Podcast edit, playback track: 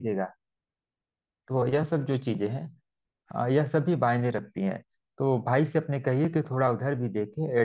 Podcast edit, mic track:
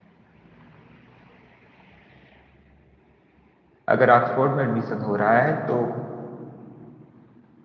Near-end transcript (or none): अगर ऑक्सफोर्ड में एडमिशन हो रहा है तो